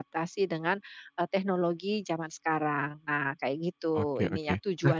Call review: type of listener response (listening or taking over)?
taking over